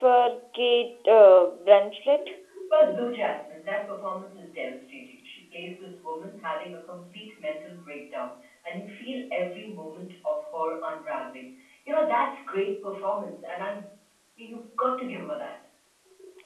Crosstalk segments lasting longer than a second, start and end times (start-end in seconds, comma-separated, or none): none